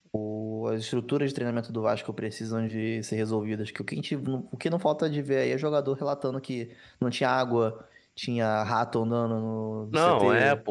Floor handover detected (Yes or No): Yes